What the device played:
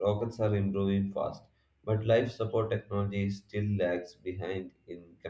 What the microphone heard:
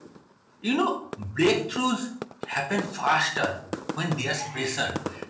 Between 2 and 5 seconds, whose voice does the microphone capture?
user only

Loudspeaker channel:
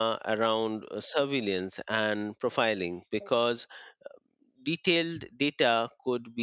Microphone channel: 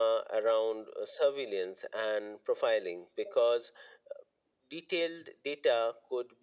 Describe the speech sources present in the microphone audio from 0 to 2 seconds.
echo only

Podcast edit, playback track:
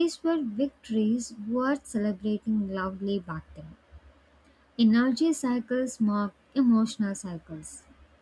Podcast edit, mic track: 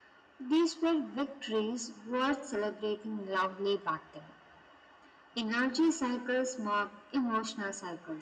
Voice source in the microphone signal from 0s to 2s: echo only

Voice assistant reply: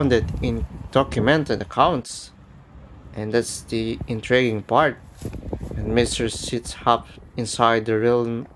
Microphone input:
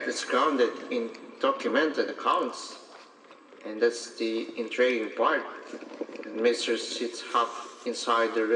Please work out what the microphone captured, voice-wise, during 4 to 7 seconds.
echo only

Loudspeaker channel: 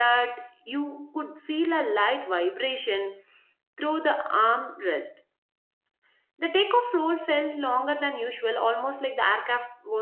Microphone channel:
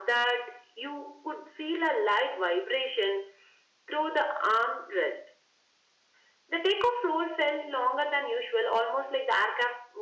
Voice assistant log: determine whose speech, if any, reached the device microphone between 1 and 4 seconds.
echo only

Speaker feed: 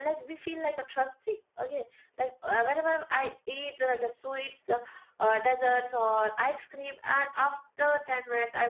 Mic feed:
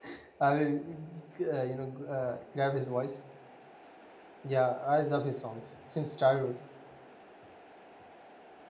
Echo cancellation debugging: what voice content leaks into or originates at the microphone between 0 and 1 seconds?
user only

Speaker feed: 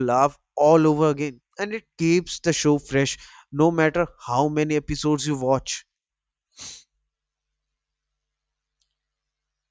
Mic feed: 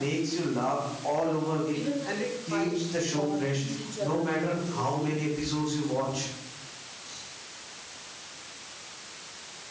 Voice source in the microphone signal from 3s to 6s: both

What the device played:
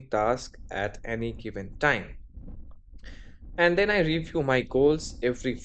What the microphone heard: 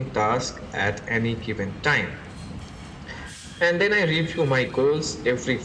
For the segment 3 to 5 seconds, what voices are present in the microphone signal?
echo only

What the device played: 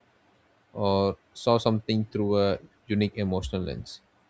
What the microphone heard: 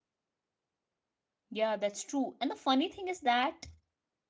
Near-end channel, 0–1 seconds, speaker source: neither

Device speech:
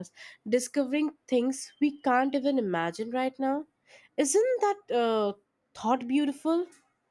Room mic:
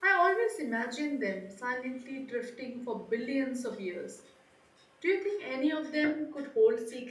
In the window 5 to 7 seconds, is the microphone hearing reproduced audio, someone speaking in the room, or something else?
user only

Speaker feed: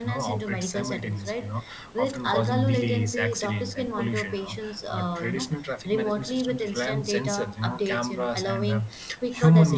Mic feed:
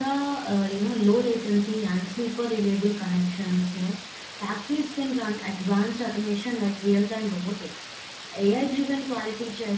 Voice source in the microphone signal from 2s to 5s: user only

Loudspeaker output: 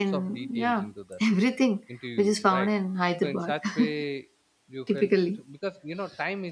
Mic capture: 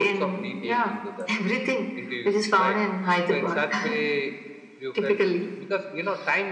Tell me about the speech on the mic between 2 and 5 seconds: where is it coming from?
echo only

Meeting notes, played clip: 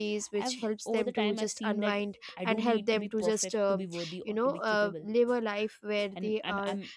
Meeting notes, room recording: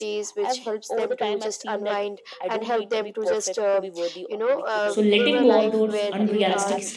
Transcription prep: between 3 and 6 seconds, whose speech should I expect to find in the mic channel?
both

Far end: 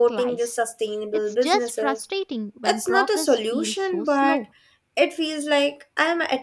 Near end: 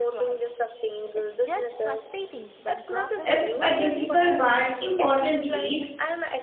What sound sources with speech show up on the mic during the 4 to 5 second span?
both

